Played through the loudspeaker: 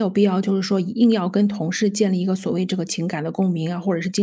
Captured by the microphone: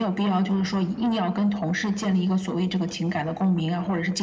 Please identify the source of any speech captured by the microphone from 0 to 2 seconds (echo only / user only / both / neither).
echo only